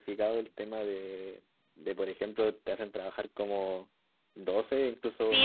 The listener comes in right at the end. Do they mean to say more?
Yes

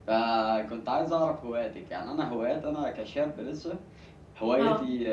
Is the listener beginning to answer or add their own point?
No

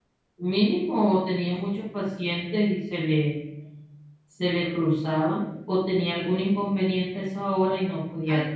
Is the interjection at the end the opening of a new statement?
Yes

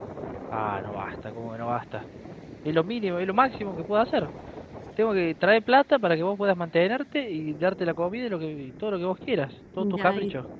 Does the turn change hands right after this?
Yes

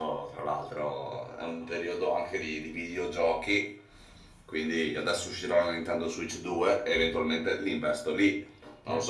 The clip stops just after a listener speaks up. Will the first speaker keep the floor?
No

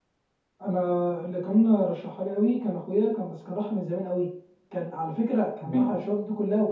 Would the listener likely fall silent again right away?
Yes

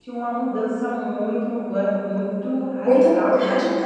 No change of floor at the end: No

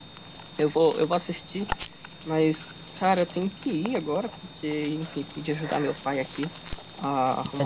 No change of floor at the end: Yes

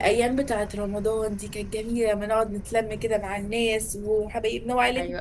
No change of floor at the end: No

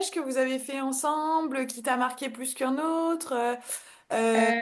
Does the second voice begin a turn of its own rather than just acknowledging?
No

